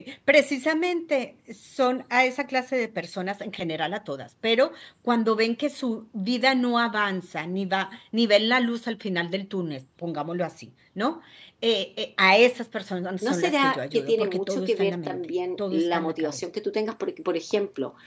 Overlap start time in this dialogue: 13.2 s

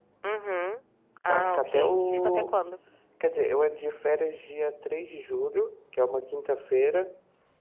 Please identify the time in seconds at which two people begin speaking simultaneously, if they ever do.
1.3 s

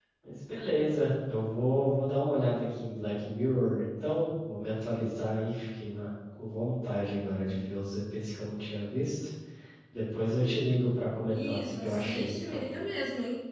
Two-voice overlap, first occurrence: 11.3 s

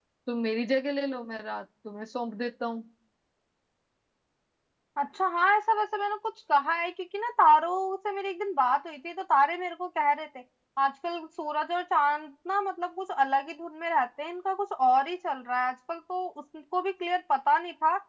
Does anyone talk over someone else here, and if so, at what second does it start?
none

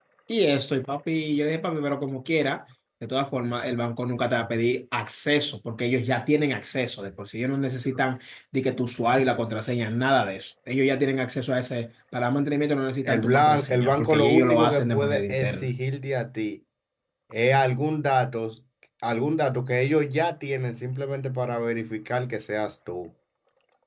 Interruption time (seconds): 13.1 s

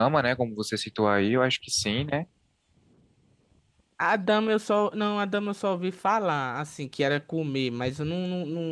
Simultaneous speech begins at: none

